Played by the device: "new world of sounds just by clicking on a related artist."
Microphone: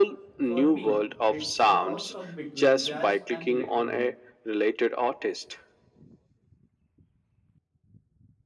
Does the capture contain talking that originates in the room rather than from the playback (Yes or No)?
Yes